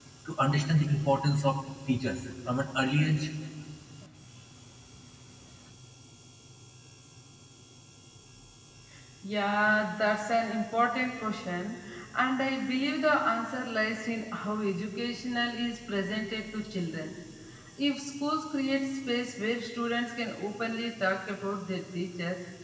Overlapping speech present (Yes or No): No